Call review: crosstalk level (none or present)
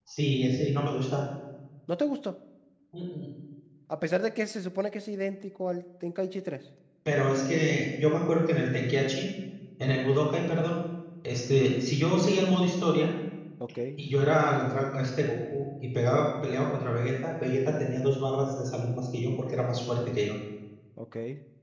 none